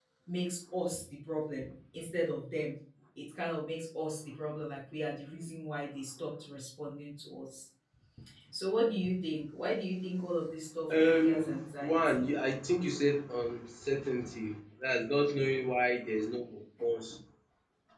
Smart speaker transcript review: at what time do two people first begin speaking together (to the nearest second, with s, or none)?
11 s